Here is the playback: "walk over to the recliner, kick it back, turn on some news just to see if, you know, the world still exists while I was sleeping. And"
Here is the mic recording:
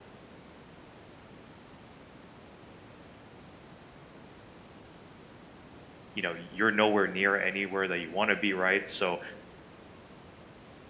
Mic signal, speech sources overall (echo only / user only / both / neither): user only